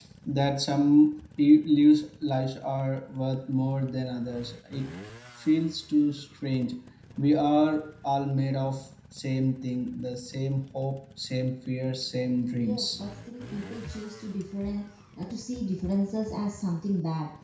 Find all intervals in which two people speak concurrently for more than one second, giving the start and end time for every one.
none

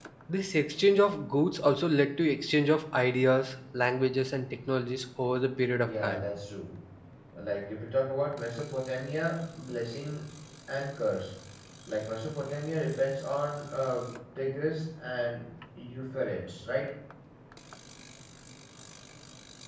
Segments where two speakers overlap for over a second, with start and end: none

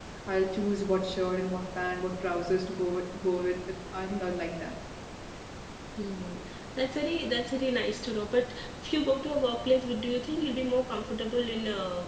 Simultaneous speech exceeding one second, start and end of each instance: none

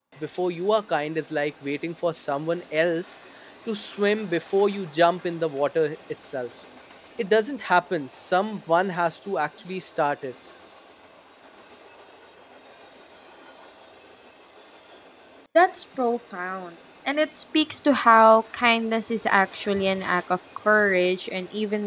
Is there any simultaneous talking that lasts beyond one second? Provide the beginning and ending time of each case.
none

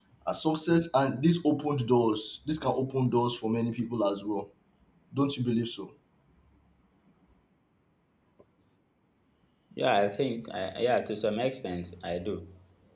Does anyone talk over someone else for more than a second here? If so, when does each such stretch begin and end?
none

